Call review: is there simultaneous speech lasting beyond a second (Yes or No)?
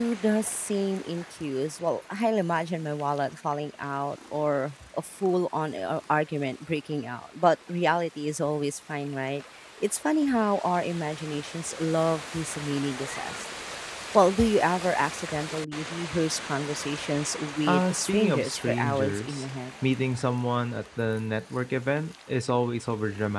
Yes